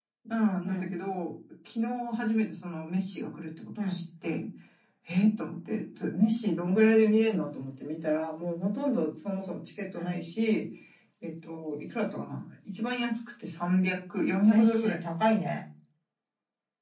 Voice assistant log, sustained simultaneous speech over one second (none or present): none